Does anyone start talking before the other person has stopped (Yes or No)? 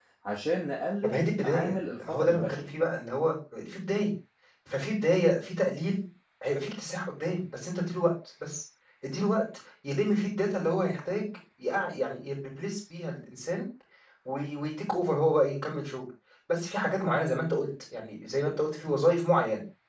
Yes